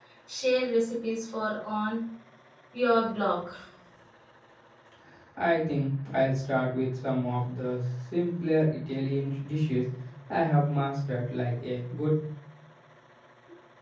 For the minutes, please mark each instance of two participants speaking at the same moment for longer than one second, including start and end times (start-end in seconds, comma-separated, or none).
none